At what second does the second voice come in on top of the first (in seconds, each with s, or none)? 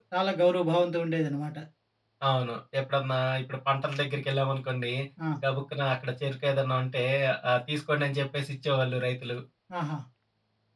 none